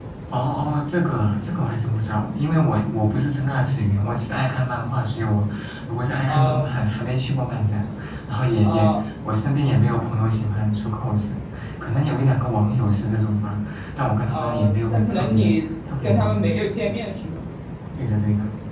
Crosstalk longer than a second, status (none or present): present